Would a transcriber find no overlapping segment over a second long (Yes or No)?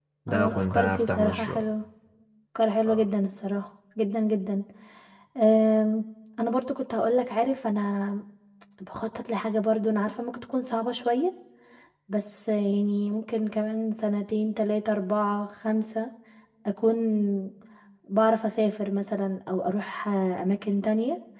No